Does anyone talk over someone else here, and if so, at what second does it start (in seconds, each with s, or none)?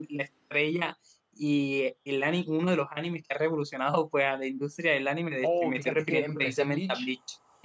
5.4 s